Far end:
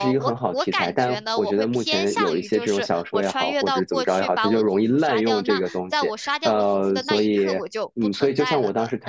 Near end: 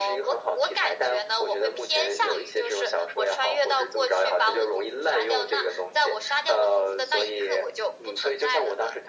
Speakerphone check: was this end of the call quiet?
Yes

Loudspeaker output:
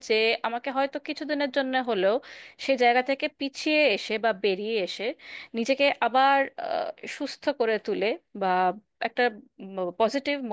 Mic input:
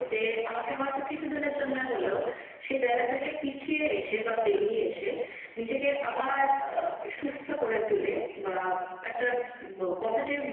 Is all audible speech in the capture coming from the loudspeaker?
Yes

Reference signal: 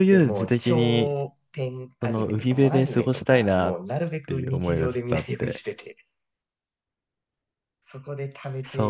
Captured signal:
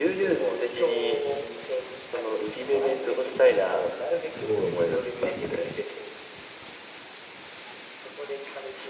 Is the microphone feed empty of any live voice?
No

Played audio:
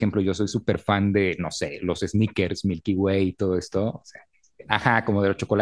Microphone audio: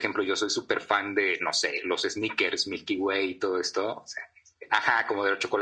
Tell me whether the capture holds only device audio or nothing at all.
Yes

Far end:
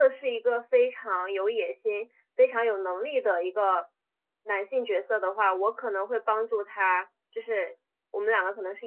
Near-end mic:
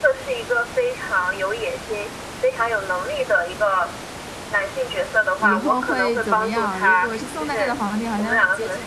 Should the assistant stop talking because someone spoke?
Yes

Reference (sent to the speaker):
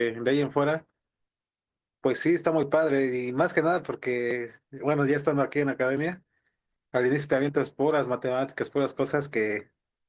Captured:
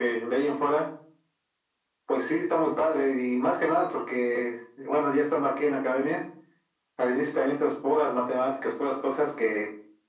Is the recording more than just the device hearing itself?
No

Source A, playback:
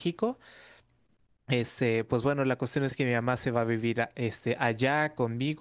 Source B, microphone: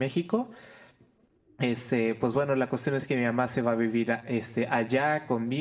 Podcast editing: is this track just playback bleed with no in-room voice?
Yes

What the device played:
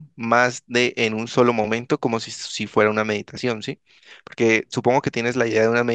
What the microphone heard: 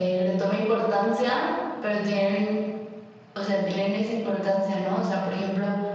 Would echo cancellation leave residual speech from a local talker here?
Yes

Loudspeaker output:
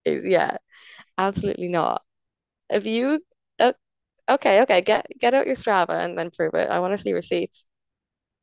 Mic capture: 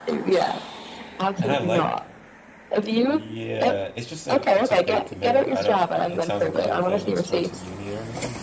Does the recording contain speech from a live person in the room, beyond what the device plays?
Yes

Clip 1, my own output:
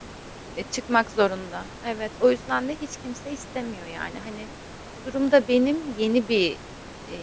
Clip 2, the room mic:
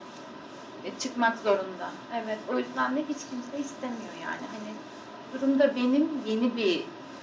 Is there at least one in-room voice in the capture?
No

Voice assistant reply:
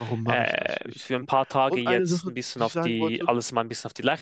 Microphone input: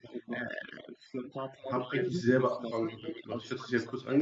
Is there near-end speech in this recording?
Yes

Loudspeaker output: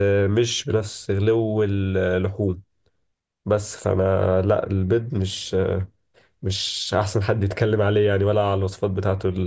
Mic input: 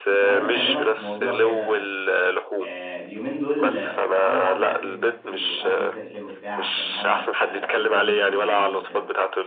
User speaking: Yes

